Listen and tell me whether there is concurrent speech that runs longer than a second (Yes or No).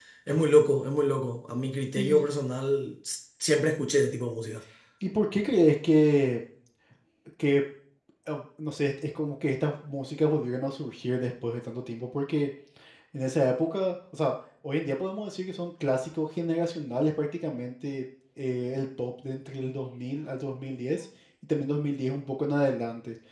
No